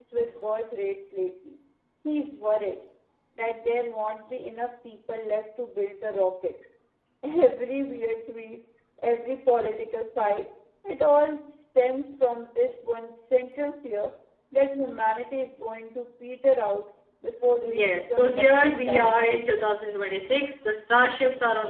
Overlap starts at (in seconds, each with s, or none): 17.6 s